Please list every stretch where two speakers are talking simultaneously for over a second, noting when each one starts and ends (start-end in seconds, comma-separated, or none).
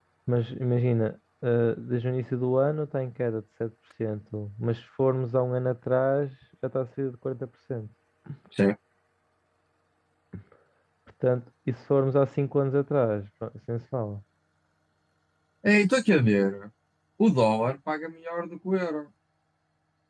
none